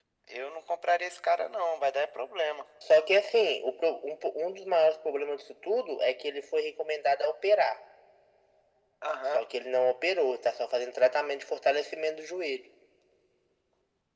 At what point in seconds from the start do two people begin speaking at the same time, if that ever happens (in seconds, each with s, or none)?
none